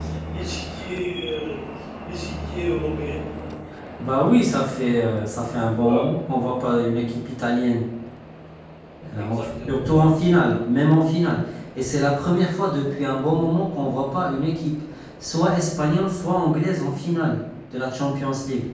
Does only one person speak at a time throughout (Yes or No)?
No